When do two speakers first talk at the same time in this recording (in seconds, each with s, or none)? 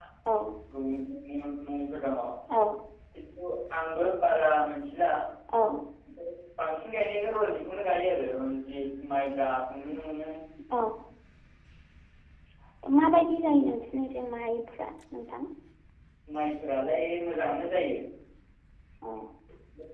none